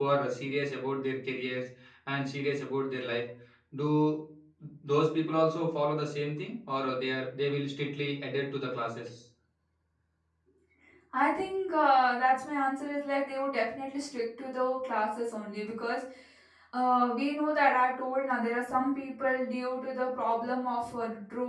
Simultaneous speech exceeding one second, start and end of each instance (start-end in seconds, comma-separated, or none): none